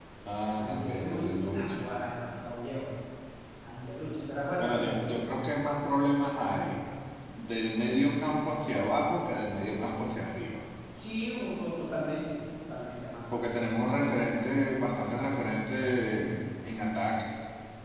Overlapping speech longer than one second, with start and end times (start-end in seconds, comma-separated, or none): 0.6-1.8